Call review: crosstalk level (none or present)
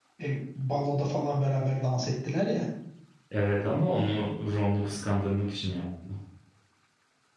none